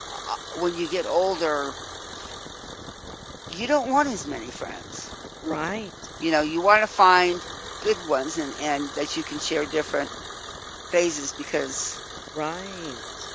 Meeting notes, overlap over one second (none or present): none